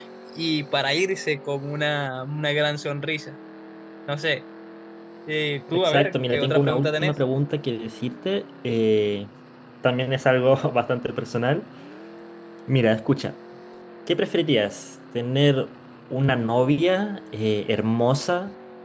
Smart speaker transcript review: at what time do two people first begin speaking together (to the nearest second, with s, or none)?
6 s